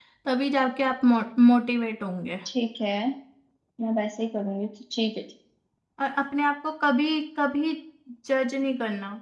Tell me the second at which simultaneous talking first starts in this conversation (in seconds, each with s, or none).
none